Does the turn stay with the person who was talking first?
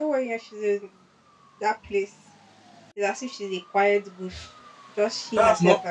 No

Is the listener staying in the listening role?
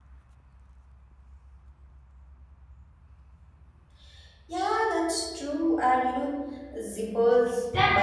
No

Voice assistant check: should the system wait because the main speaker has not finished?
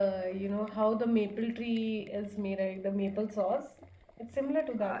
No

